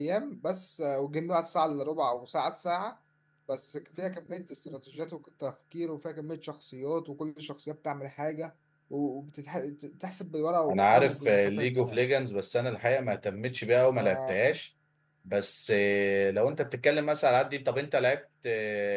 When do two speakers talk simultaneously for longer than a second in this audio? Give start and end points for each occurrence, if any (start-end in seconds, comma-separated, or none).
10.7-12.0